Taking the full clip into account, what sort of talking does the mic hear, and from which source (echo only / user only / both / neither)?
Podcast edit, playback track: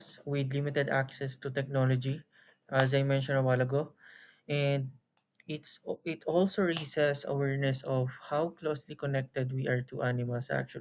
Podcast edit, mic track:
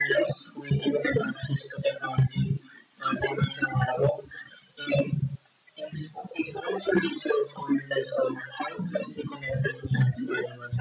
echo only